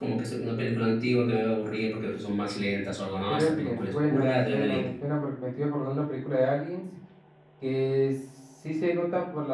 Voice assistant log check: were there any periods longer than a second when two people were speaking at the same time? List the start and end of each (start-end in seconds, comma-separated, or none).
3.3-4.9